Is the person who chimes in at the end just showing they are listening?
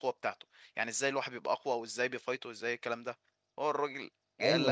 No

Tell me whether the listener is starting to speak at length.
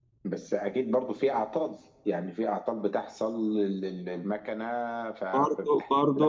Yes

